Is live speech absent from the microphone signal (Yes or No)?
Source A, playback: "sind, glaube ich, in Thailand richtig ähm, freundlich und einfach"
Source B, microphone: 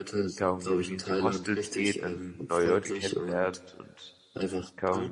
No